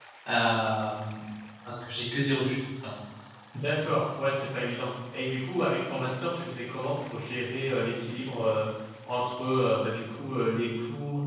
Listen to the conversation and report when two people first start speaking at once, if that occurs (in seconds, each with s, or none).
none